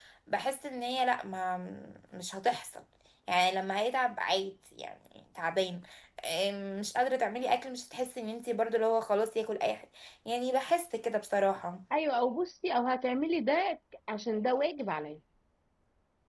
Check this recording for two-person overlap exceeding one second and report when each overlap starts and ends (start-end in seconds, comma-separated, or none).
none